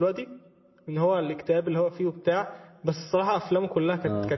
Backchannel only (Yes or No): Yes